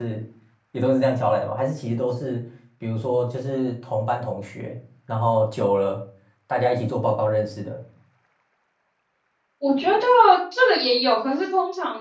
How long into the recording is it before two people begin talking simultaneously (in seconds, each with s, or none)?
none